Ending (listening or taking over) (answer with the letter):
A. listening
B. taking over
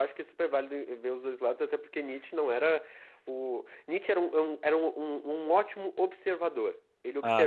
A